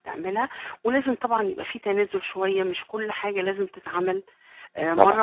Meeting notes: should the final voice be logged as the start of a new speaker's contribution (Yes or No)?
No